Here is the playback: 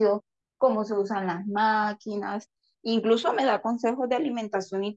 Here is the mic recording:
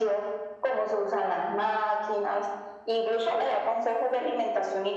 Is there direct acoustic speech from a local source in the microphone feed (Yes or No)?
No